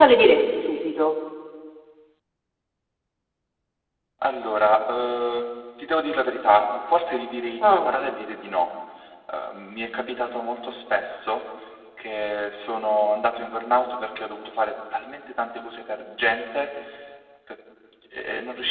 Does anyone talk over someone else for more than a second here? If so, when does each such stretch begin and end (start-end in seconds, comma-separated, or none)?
none